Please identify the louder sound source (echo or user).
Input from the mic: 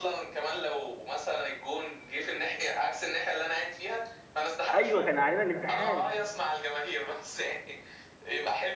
user